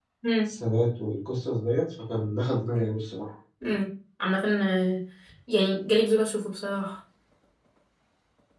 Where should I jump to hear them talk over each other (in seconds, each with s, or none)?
none